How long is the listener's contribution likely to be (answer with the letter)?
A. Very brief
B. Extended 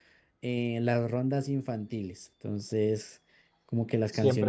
B